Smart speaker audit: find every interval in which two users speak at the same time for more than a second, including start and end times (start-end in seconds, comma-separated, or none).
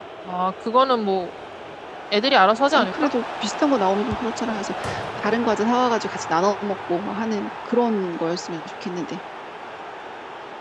none